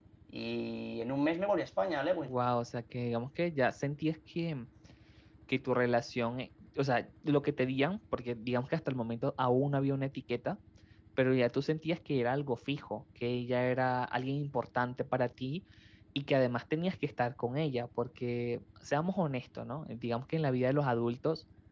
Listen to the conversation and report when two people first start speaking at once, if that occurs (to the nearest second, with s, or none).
none